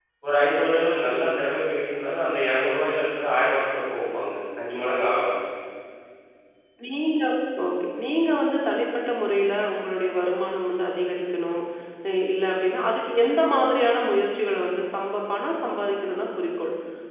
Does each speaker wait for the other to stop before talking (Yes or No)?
Yes